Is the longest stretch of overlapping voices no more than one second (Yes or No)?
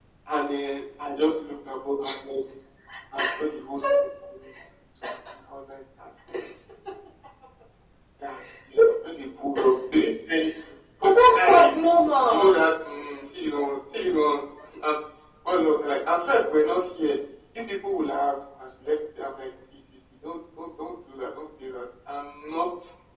No